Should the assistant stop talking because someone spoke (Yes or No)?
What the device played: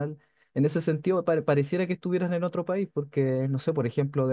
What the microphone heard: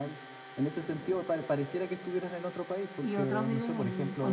Yes